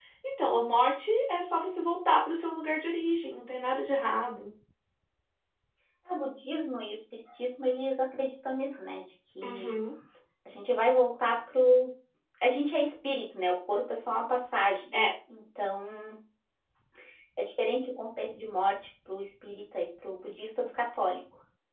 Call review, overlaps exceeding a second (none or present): none